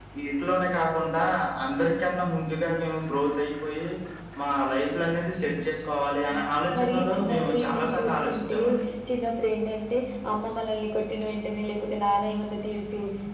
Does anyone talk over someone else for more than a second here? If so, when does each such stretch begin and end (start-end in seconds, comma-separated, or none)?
6.8-8.6